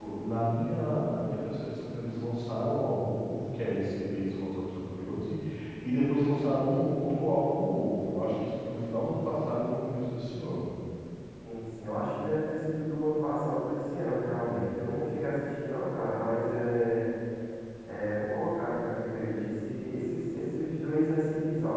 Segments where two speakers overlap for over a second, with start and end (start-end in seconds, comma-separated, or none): none